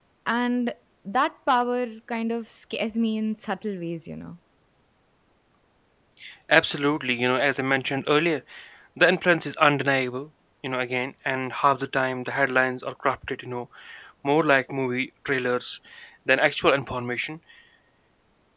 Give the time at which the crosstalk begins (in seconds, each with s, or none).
none